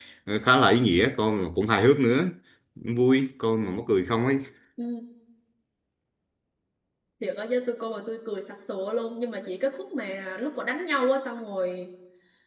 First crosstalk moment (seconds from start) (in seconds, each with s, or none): none